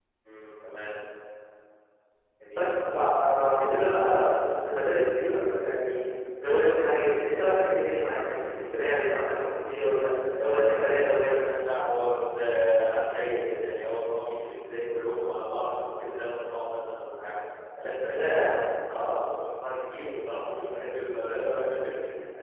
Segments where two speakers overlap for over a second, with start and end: none

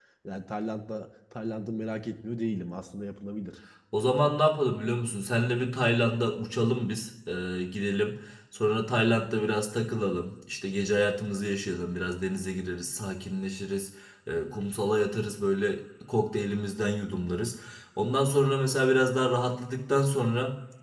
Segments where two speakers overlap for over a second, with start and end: none

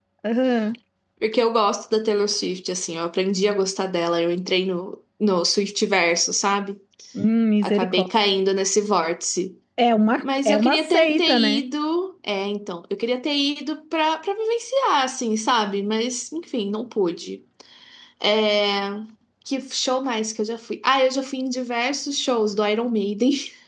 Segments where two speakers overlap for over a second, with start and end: 10.2-11.6

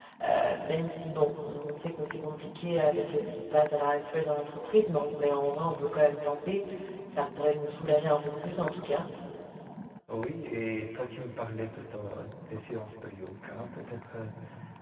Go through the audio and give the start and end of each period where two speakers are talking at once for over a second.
none

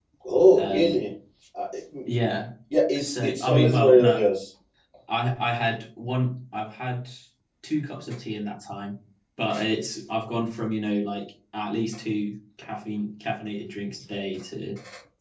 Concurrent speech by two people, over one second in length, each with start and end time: 3.0-4.2

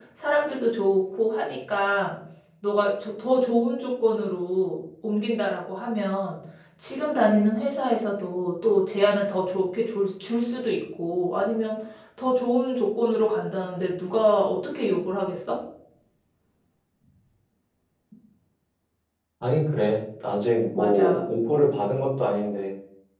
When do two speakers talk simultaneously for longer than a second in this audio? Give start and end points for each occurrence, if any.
none

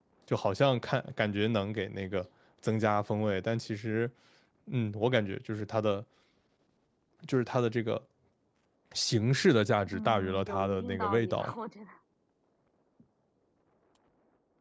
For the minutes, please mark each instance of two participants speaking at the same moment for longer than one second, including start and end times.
9.9-11.5

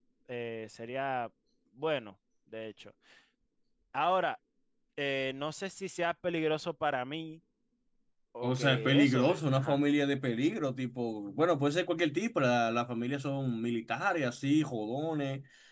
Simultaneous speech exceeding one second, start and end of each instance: 8.4-9.8

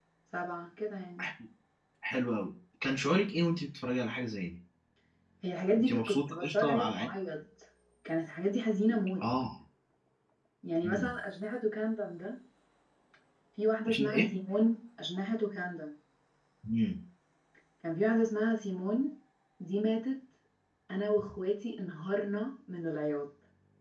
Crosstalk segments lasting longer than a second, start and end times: 5.8-7.1

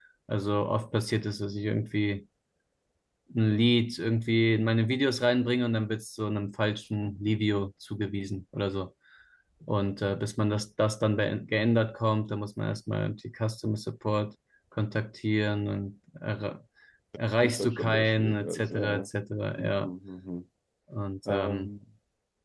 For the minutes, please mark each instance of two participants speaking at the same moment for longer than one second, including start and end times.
17.4-19.1

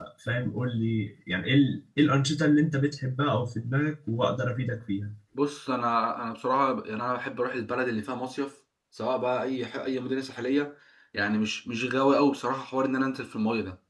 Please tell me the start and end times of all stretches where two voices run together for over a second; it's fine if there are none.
none

